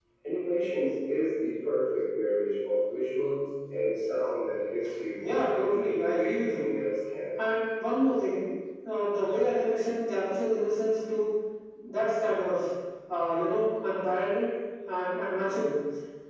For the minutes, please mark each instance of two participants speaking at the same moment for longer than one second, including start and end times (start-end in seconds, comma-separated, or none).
5.2-6.7